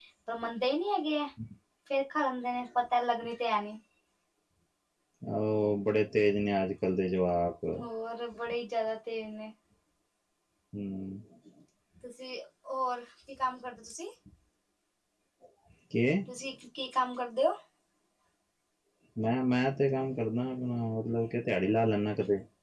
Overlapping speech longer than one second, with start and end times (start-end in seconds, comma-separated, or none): none